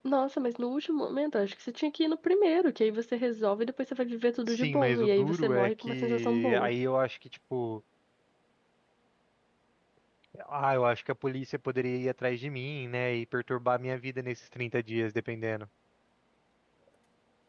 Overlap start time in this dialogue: 4.5 s

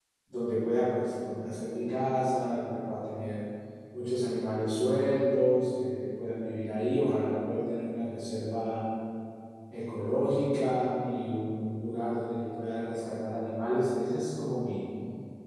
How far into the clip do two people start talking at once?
none

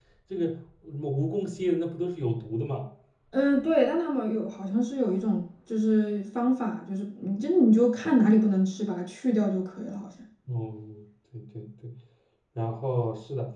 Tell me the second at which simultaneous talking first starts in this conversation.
none

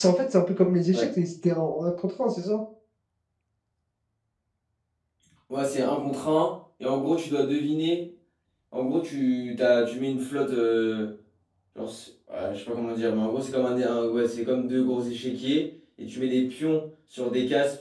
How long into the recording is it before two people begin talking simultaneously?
none

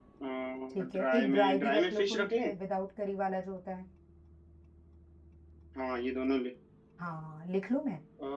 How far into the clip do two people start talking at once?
0.7 s

